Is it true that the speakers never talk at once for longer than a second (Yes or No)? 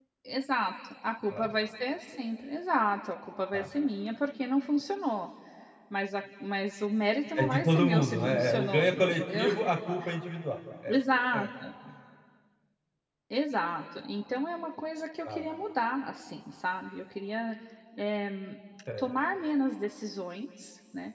No